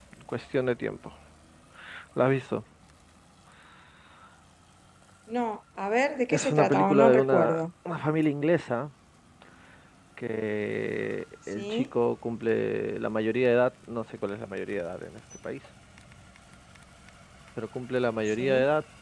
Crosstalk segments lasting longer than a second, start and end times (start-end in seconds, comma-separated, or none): 6.3-7.6